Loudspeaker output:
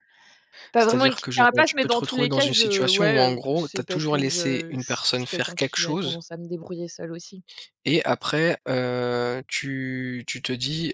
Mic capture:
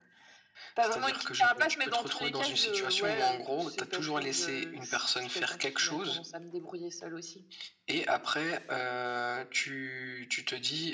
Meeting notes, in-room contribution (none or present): none